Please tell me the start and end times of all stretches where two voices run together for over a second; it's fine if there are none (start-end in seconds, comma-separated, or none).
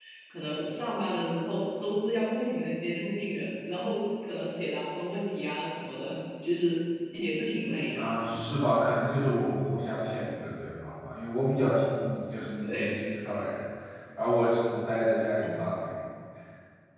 none